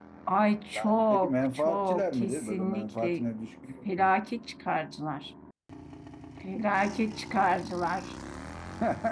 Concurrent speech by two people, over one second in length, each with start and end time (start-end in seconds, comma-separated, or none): 0.7-3.2